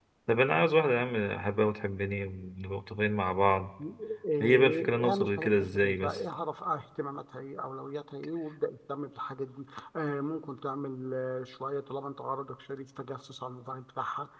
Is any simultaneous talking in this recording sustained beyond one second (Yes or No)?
Yes